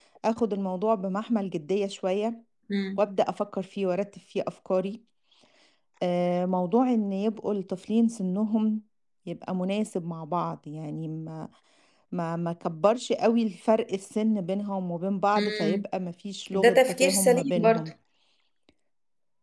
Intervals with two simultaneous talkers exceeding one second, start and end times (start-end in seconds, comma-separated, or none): 16.5-17.9